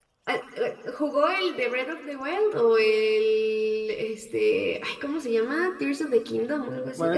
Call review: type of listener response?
taking over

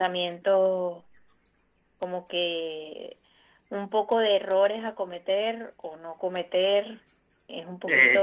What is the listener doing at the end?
taking over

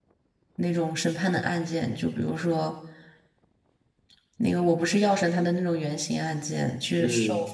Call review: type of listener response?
listening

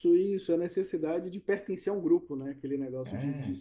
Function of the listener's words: listening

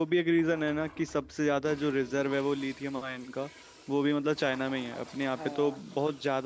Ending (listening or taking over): listening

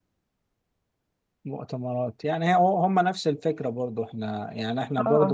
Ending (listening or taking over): listening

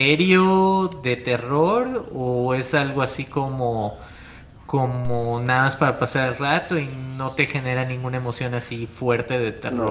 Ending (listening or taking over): taking over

